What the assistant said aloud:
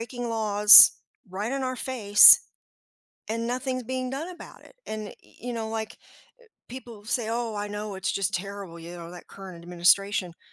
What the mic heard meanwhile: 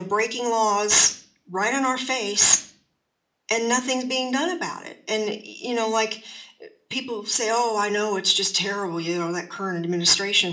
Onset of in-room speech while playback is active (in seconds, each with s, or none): none